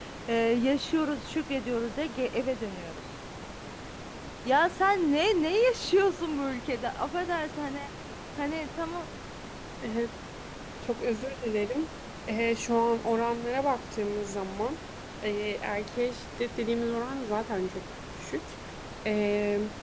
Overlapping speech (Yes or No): No